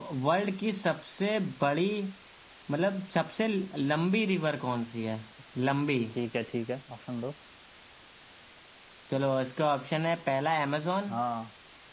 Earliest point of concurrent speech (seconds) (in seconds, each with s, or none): none